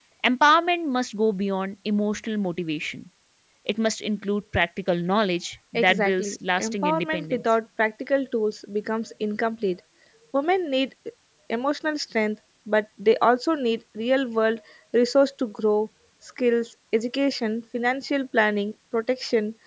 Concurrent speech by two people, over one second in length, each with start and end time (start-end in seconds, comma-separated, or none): 5.7-7.4